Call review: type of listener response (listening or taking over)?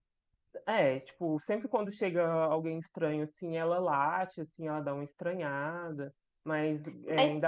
listening